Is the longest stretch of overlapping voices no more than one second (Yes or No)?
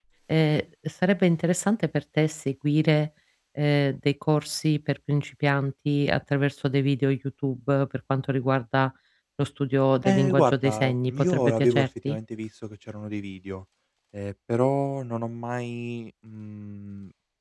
No